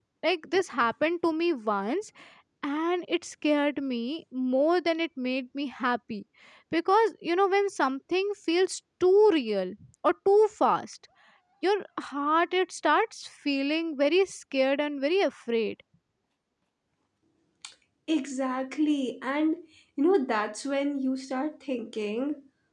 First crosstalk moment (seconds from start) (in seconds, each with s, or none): none